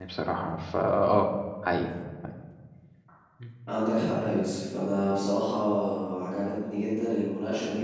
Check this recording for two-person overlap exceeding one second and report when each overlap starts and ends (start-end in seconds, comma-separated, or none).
none